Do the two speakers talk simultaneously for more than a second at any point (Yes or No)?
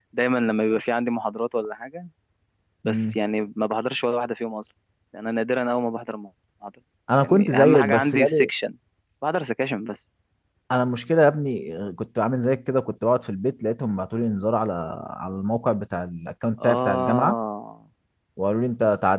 Yes